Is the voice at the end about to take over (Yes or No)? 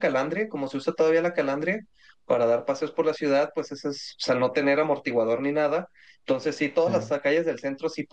No